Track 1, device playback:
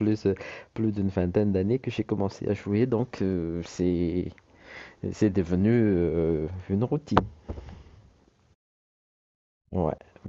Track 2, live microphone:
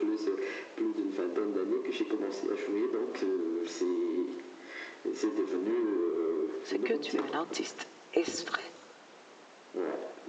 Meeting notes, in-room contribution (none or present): present